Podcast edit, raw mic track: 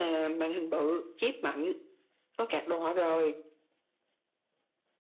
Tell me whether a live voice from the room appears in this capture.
No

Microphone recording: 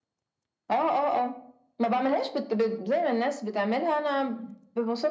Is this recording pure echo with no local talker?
Yes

